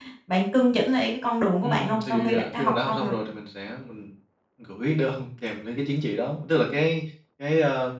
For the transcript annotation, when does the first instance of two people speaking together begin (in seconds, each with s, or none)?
1.6 s